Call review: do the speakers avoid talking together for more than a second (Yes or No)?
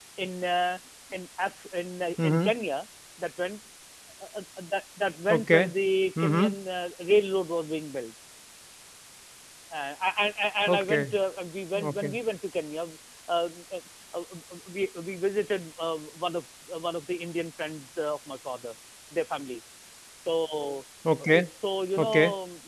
Yes